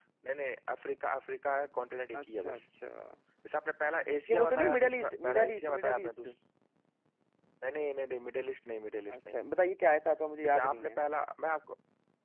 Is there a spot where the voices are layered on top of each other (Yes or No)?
Yes